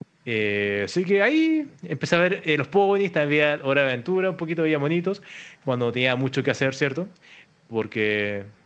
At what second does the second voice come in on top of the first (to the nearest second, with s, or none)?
none